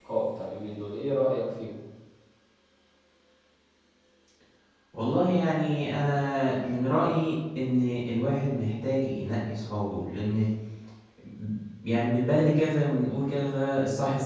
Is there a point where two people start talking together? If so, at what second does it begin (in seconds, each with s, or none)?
none